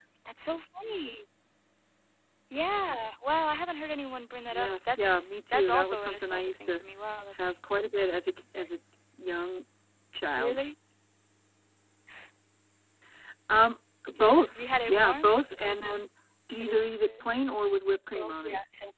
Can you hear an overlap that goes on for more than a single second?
Yes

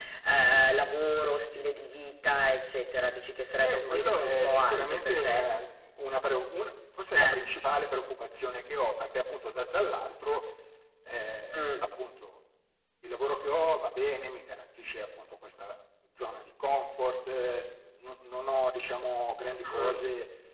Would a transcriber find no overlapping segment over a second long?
No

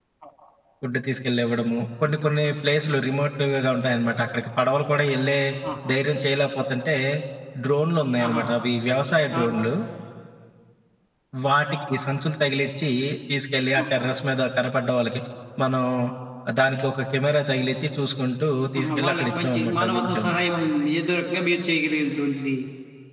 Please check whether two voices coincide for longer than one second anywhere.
Yes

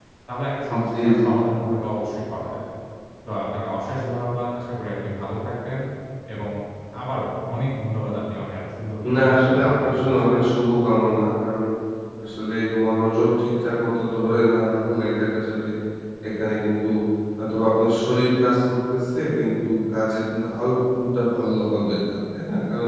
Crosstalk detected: Yes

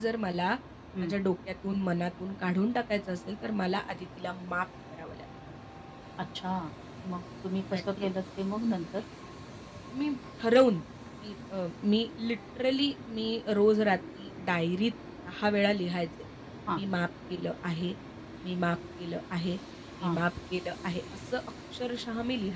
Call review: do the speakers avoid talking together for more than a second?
Yes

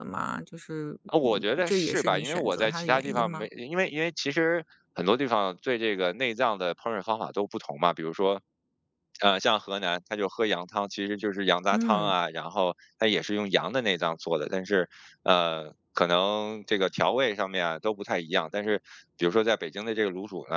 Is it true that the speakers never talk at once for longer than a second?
No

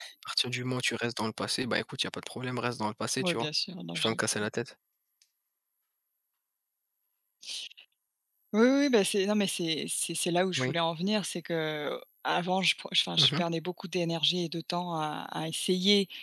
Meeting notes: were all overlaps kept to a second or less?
Yes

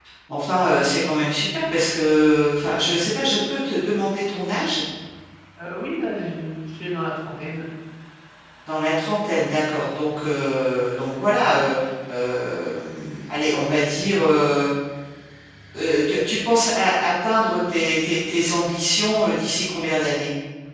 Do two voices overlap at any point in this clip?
No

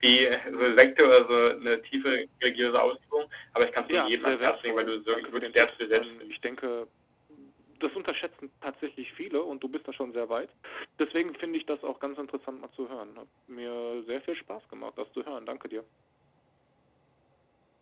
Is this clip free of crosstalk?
No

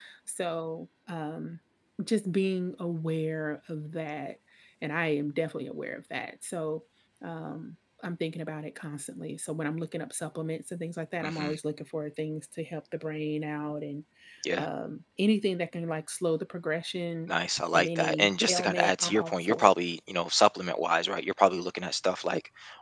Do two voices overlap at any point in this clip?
Yes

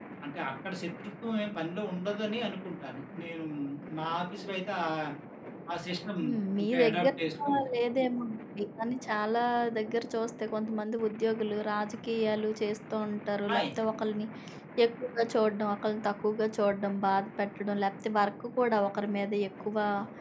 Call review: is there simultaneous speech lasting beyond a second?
No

